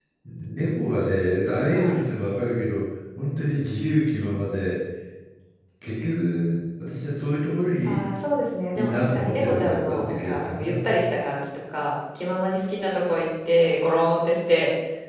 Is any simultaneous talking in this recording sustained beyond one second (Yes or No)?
Yes